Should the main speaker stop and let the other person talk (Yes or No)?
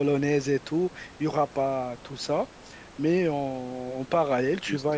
No